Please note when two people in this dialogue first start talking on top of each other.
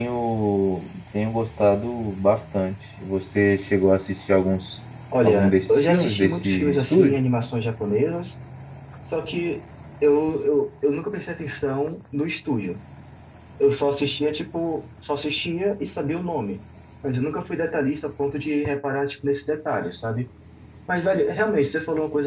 5.2 s

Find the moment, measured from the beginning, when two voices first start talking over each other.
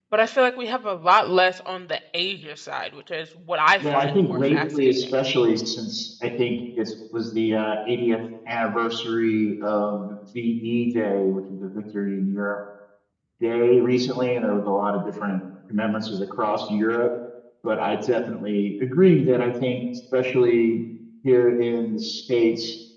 3.8 s

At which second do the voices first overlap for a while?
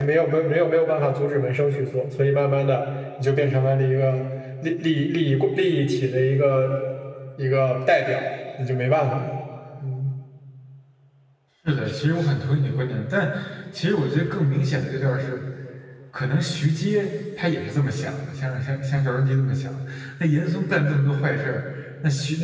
none

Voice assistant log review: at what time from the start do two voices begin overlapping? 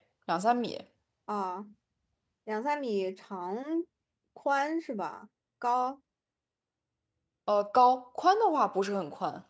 none

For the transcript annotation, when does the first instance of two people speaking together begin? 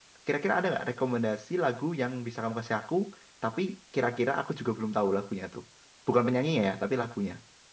none

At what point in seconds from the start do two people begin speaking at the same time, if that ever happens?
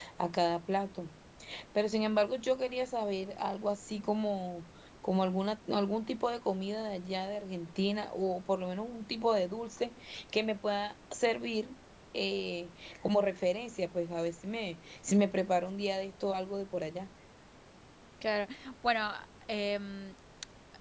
none

